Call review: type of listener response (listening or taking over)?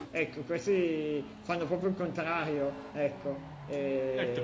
taking over